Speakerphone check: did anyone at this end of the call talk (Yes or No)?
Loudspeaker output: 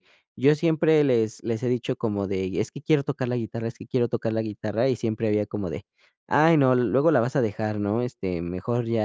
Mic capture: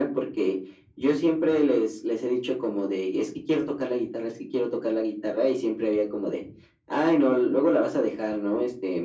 No